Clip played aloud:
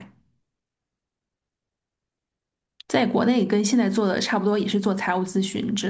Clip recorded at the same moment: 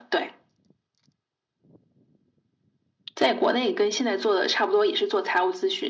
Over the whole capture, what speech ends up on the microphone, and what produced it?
echo only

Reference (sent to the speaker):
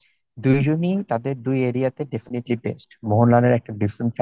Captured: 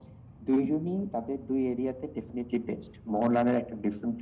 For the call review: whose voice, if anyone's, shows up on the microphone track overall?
echo only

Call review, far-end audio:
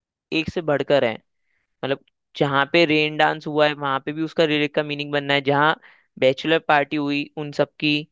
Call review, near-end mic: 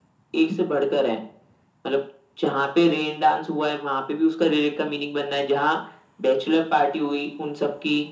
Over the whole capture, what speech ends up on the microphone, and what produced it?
echo only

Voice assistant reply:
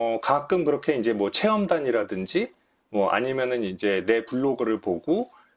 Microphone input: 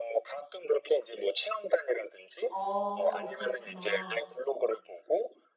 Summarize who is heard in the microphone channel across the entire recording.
both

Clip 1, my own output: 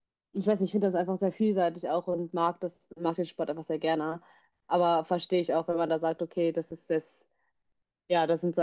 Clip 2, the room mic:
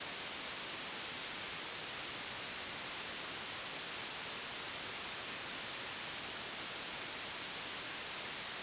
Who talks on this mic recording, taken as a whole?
neither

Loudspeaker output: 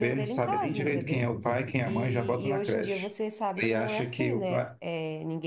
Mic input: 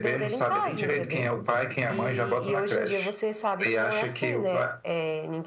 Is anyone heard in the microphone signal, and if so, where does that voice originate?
echo only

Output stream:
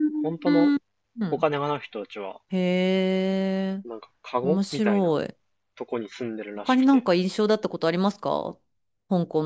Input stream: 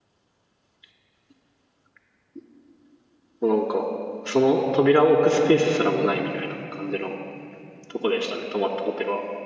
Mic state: user only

